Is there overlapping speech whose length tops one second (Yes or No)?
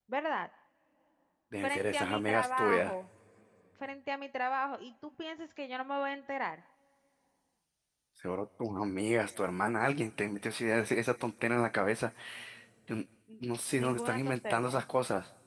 Yes